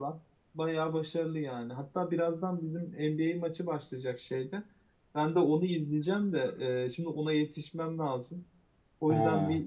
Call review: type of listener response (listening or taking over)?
listening